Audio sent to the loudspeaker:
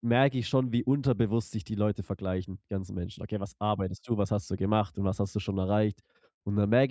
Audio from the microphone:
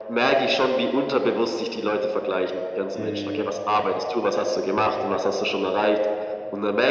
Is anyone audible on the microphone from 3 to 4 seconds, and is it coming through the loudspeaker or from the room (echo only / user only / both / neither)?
both